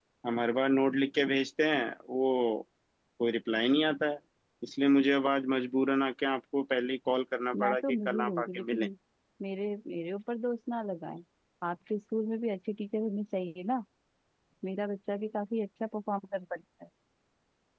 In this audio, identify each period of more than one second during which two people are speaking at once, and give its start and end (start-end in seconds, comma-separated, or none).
7.6-8.8